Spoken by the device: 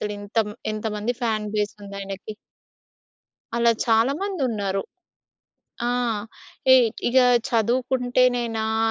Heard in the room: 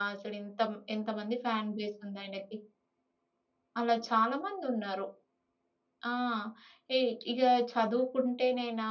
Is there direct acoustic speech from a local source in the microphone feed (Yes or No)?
No